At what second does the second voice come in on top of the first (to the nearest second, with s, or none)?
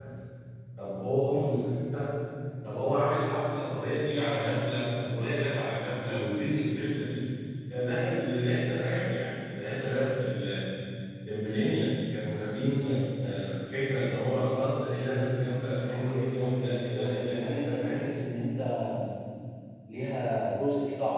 16 s